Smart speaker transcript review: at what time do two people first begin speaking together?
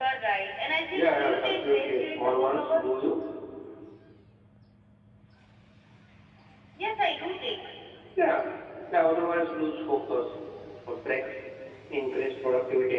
0.9 s

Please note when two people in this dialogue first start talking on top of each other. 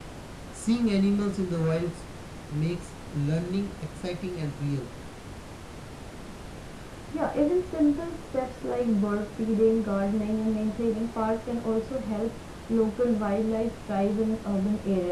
none

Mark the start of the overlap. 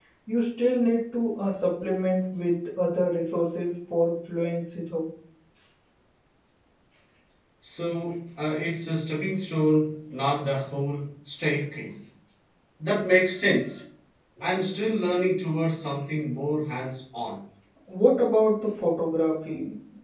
none

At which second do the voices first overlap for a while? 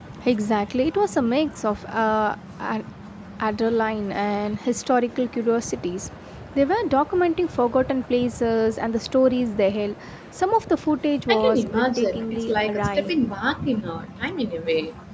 11.3 s

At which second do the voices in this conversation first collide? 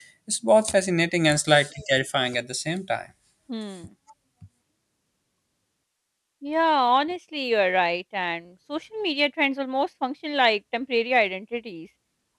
none

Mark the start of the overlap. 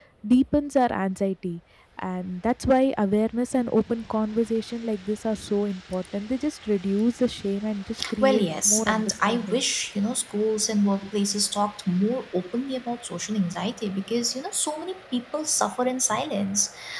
8.0 s

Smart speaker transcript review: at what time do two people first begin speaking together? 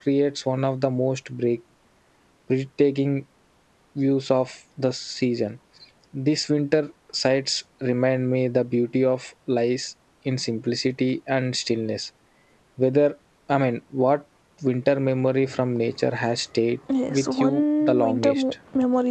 16.9 s

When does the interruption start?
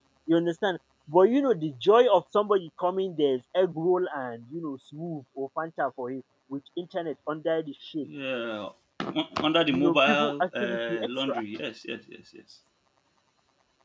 9.7 s

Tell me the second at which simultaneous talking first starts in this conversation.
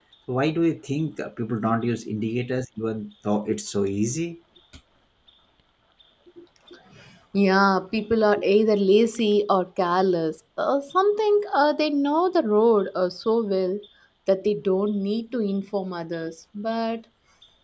none

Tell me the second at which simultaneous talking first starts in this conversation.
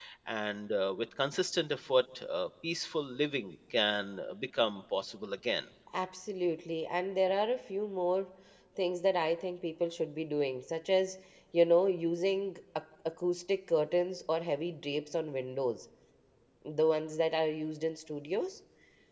none

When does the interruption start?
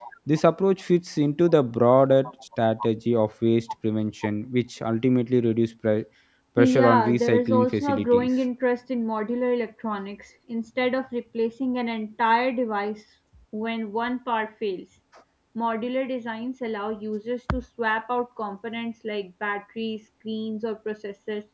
6.6 s

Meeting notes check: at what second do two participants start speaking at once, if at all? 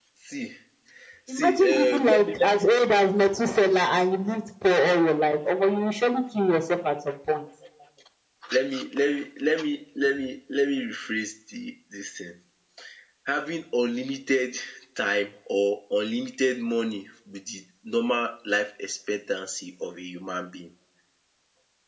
1.4 s

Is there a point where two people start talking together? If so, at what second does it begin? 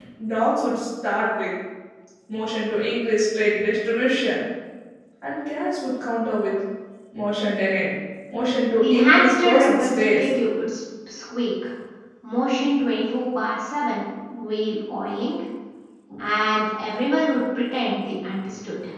8.8 s

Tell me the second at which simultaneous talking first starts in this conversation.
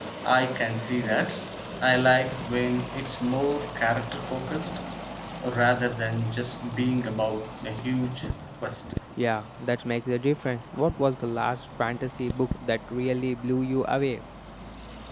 none

